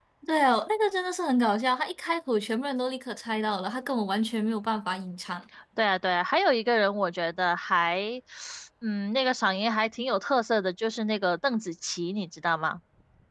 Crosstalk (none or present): none